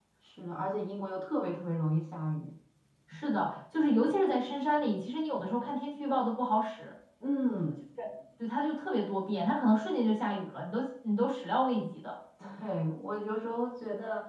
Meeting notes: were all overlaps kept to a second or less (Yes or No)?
Yes